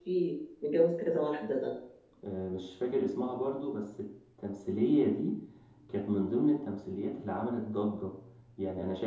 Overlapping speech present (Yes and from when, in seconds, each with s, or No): No